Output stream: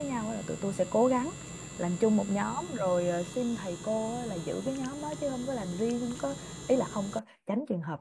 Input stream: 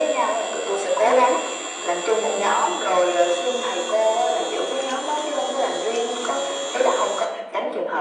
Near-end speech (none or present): none